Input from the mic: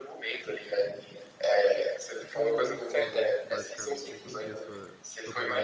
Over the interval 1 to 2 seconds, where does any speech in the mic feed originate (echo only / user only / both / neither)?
echo only